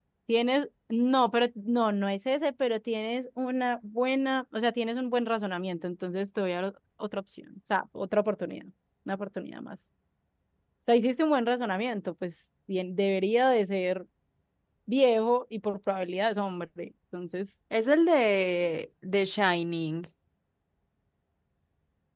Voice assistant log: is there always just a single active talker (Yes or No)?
Yes